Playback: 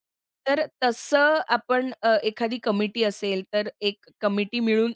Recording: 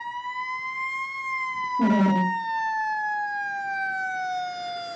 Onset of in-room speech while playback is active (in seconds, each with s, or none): 1.8 s